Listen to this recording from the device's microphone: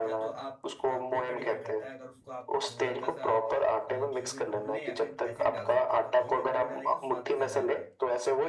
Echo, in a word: present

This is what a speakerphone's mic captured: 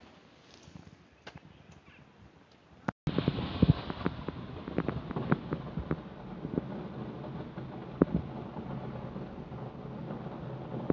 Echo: none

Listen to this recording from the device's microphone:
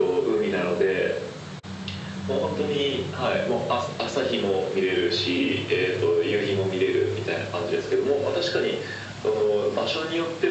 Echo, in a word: present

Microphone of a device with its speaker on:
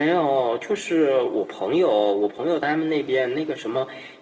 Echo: present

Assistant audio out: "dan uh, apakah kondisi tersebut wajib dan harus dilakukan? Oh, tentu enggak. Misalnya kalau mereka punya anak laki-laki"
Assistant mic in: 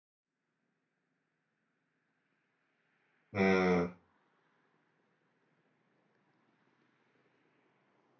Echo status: none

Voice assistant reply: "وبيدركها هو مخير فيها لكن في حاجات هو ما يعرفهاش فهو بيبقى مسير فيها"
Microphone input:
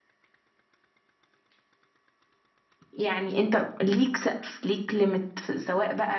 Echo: none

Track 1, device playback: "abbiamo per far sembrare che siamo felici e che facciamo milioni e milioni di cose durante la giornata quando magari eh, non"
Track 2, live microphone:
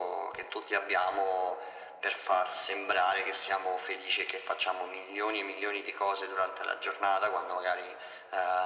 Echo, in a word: present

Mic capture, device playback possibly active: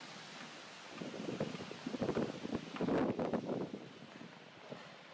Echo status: none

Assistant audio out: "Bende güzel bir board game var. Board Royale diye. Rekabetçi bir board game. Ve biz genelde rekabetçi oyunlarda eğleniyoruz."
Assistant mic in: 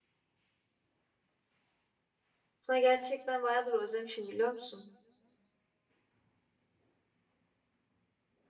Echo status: none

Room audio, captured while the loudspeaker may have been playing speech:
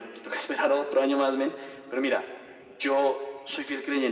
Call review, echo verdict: present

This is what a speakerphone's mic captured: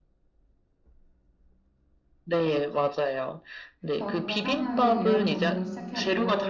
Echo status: present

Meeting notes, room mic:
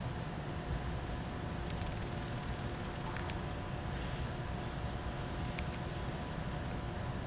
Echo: none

